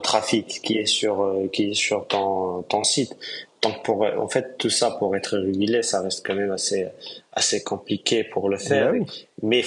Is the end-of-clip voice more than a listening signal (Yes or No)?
No